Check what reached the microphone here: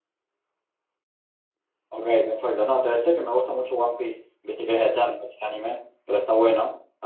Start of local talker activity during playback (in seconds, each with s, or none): 1.9 s